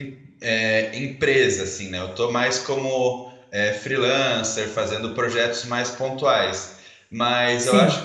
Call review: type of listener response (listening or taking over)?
listening